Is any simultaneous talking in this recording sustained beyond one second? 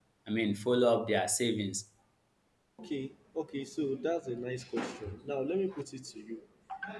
No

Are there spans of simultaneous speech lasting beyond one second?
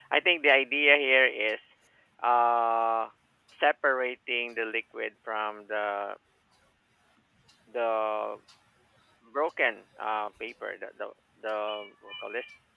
No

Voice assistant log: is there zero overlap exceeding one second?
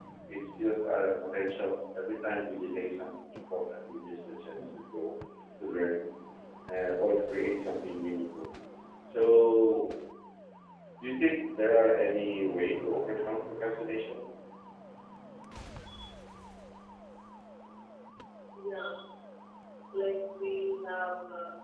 Yes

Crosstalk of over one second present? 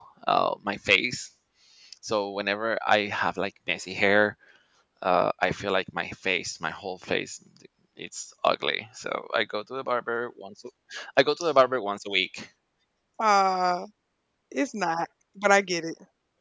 No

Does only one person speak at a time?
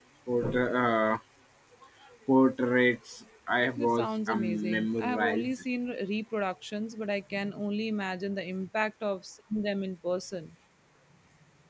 No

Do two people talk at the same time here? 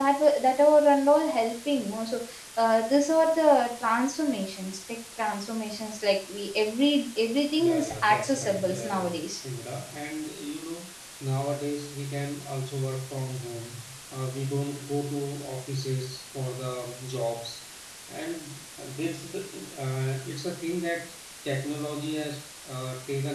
Yes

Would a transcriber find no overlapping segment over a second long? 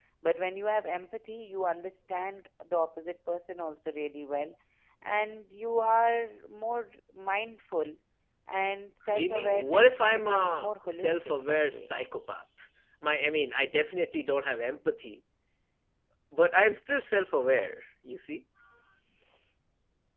No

